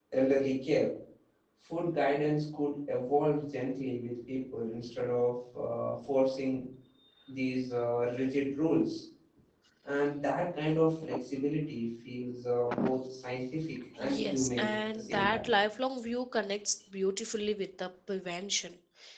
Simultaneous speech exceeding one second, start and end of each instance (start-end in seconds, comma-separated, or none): 14.2-15.5